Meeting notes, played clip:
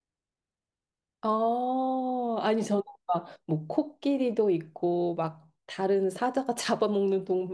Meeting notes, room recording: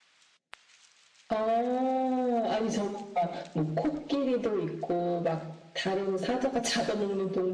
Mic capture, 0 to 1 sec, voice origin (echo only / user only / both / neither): neither